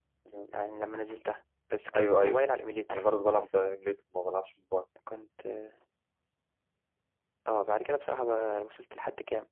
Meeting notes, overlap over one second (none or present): none